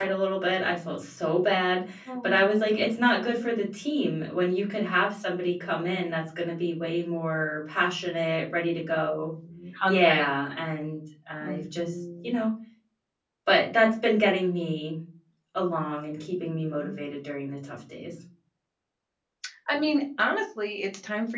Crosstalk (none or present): present